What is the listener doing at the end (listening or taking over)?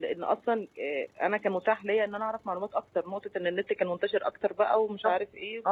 taking over